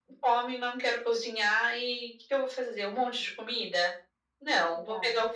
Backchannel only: Yes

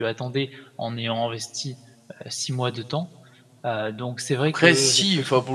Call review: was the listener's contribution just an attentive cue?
No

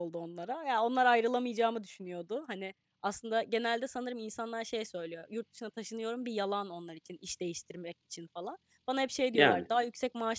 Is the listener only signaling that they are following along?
Yes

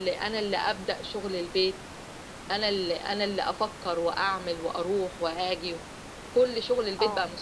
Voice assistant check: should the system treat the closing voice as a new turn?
No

